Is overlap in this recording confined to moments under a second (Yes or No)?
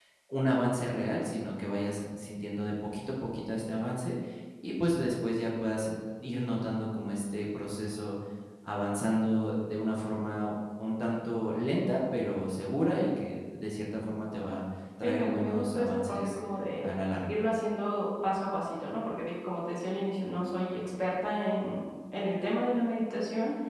No